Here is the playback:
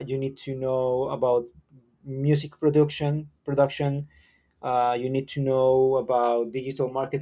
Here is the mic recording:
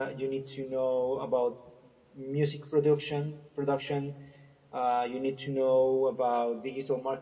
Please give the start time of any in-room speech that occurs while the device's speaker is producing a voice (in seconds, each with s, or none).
none